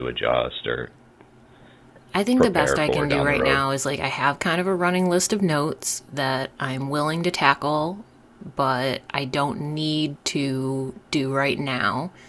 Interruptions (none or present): present